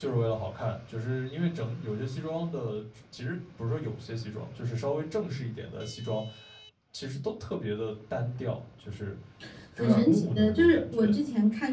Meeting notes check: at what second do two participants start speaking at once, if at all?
9.8 s

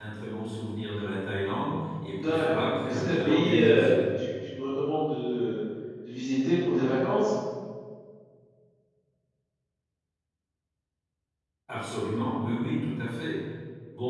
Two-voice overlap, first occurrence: 2.1 s

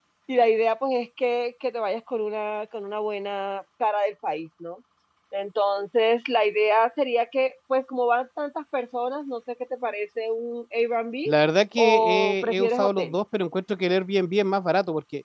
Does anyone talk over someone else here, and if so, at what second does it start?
11.8 s

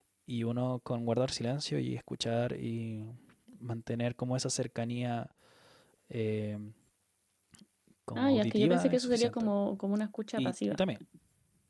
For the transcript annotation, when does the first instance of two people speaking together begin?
8.2 s

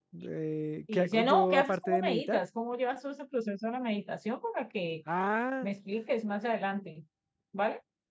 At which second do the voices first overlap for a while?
0.9 s

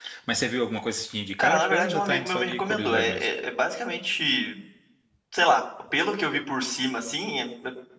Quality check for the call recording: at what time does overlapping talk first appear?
1.4 s

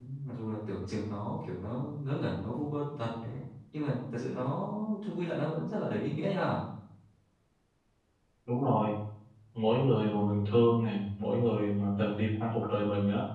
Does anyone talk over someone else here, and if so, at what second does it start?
none

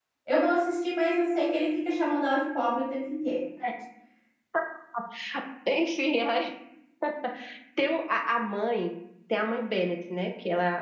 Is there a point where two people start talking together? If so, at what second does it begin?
none

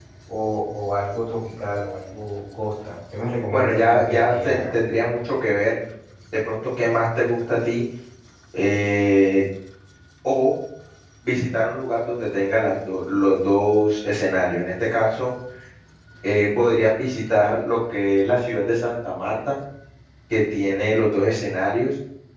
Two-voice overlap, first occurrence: 3.5 s

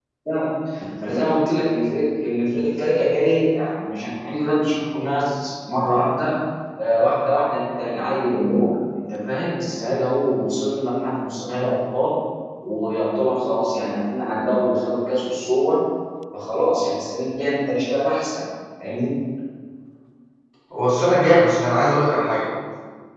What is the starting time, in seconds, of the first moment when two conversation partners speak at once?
none

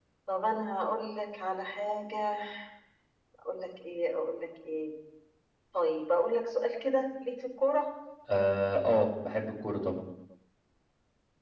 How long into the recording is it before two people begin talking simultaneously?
none

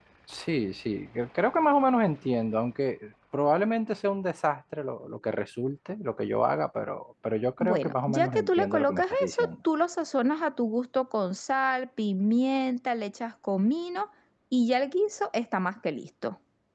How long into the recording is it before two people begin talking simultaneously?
7.6 s

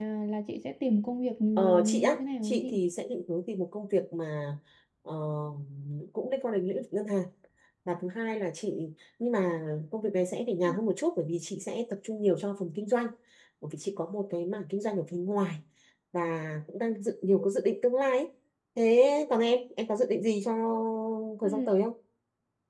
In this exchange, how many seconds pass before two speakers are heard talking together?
1.6 s

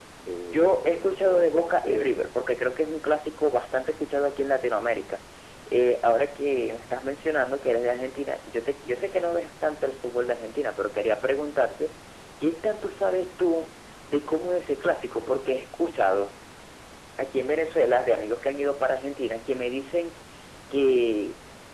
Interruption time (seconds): 0.5 s

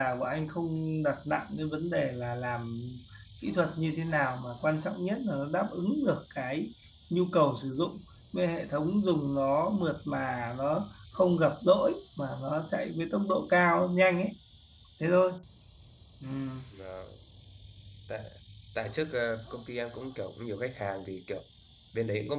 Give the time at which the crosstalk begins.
none

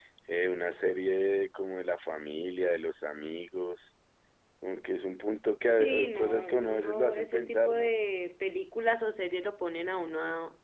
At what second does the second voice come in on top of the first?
5.8 s

